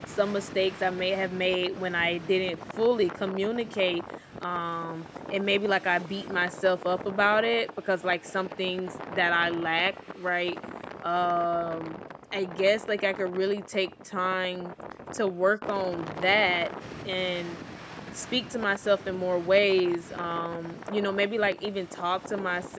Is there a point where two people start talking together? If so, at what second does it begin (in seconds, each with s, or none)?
none